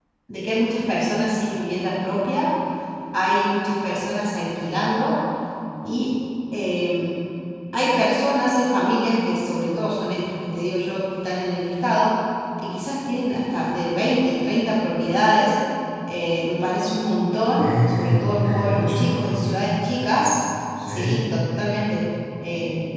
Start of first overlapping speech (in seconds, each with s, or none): 17.6 s